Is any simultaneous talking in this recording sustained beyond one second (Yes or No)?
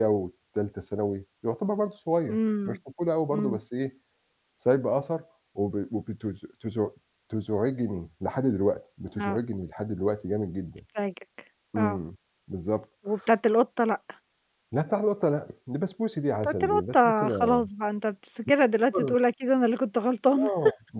Yes